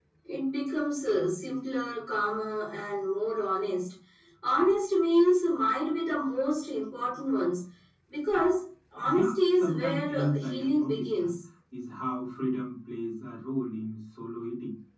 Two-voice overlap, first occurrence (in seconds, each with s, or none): 9.0 s